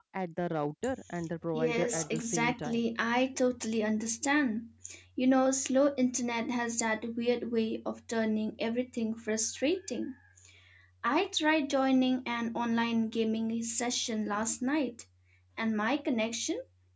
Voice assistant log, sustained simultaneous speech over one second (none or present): present